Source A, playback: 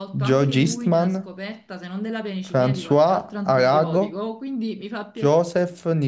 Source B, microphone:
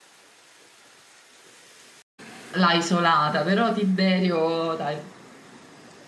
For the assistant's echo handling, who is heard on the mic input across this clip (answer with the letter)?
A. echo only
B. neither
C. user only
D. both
C